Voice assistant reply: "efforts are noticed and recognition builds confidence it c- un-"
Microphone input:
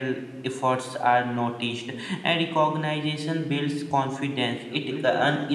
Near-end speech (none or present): present